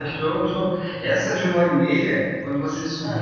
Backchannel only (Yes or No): Yes